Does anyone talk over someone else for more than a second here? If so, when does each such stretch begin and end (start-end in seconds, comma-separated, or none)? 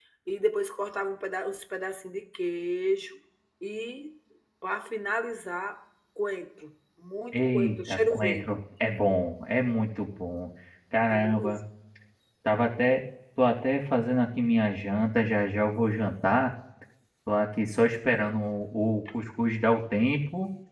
7.3-8.6